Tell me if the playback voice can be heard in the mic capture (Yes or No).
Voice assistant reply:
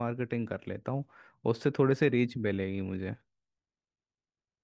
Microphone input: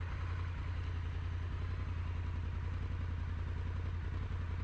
No